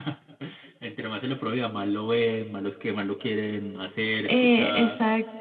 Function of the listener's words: taking over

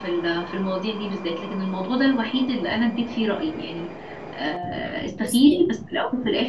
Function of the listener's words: listening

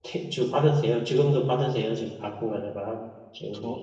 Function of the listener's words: taking over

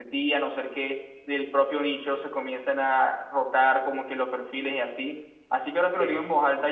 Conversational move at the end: listening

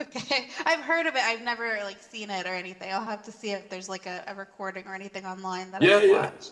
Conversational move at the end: taking over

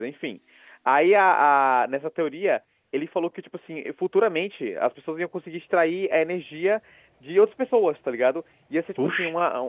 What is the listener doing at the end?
listening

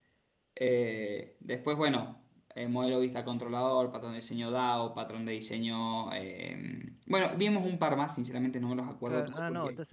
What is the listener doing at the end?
taking over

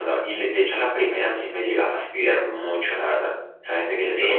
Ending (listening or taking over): taking over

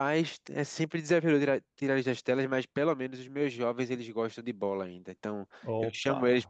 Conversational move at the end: listening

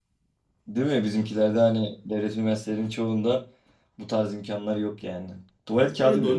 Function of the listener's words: taking over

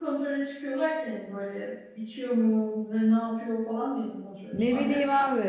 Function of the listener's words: taking over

